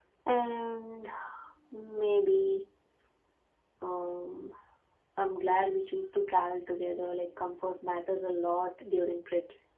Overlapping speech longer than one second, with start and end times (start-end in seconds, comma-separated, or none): none